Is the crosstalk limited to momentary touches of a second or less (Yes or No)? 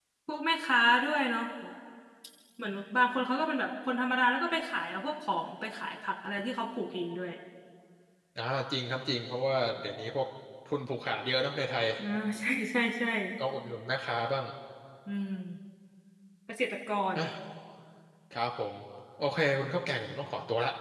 Yes